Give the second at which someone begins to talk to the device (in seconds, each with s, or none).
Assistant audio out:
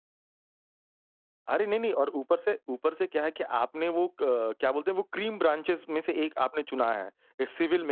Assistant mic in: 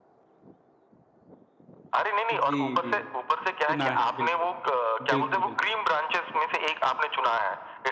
2.3 s